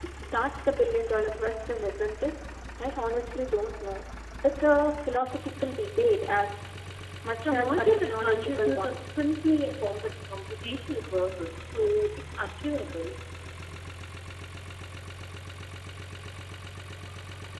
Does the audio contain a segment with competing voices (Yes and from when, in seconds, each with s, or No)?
Yes, from 7.4 s